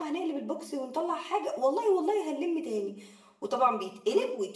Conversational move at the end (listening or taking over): listening